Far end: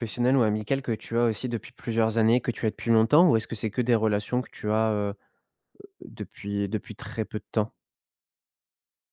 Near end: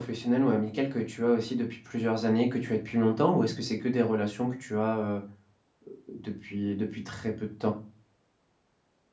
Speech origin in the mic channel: echo only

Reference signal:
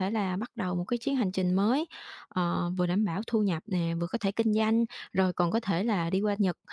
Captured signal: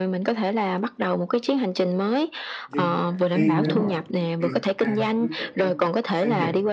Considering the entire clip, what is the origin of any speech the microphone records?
both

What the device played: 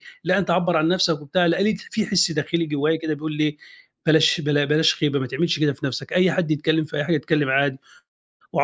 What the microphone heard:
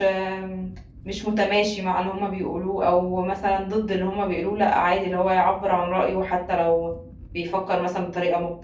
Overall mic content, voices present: user only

